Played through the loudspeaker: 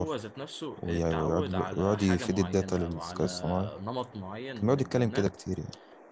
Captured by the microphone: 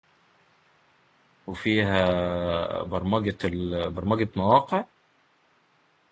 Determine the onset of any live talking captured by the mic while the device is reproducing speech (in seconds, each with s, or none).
1.5 s